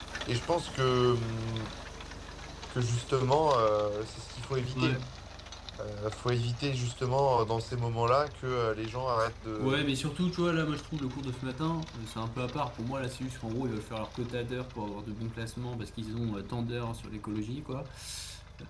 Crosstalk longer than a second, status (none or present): none